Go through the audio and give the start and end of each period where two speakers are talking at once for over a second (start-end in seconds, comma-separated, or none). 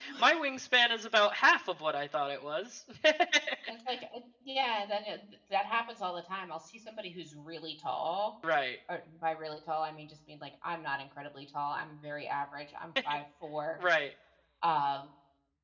none